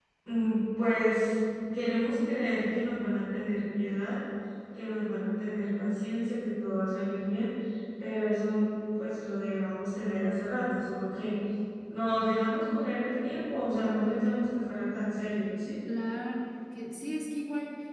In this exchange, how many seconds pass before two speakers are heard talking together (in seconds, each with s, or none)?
none